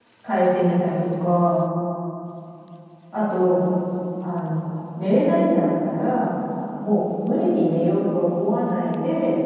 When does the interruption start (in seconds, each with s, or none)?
none